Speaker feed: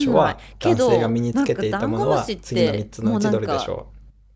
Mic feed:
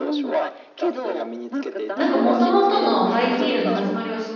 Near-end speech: present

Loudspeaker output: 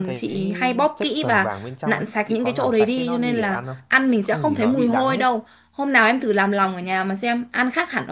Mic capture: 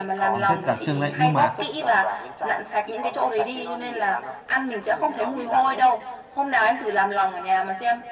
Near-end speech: present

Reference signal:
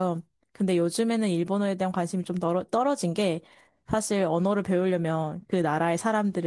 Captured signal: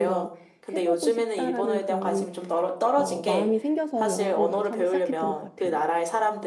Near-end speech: present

